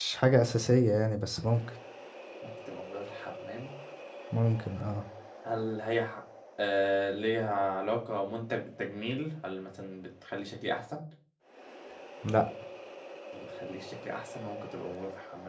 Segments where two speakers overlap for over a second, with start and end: none

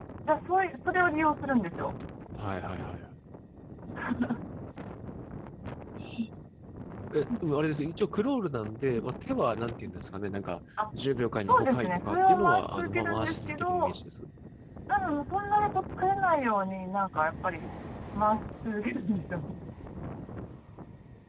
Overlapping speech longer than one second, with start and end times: 11.5-13.7

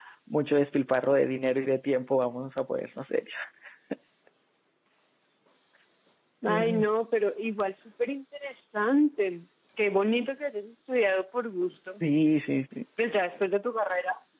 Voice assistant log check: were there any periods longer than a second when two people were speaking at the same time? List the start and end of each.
none

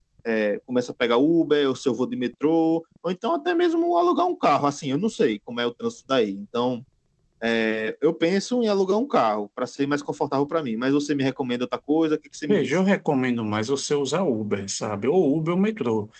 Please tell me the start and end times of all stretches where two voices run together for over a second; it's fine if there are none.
none

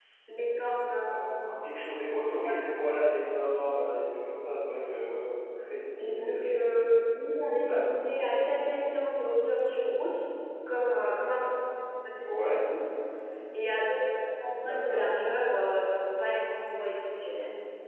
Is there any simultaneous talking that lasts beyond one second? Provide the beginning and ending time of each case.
none

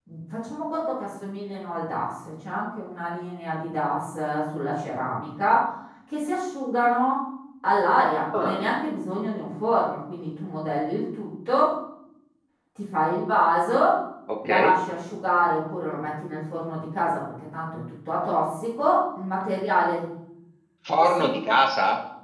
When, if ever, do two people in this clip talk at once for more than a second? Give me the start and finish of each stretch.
none

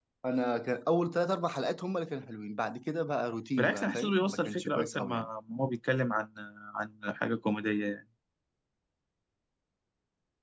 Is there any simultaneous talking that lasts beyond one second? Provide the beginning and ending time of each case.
3.6-5.3

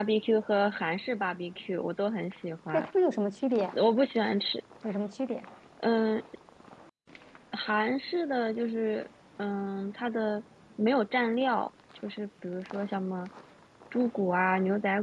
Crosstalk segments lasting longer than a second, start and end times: none

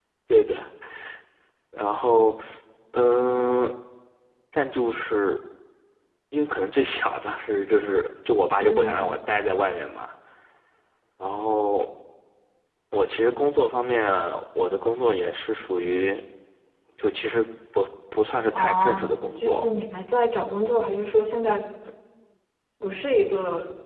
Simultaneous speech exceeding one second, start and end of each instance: 18.5-19.7

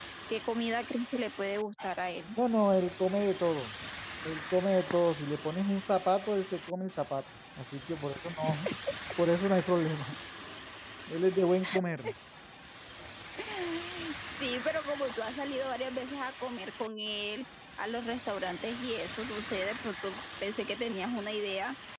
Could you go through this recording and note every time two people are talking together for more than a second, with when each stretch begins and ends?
none

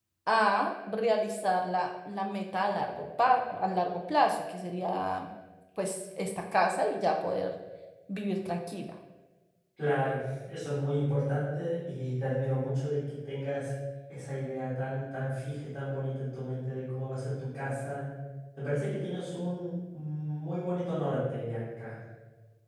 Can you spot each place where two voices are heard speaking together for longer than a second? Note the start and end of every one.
none

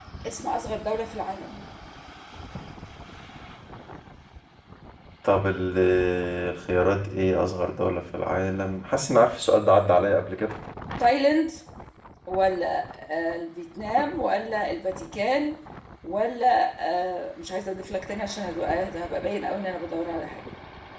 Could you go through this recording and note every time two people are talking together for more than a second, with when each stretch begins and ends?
none

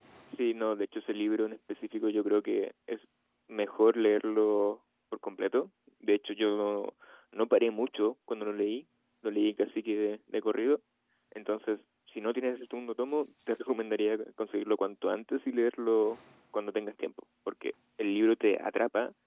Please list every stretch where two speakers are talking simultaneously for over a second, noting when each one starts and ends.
none

